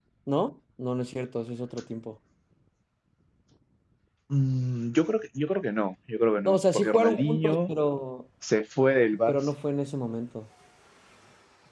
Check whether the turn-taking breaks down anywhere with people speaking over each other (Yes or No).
Yes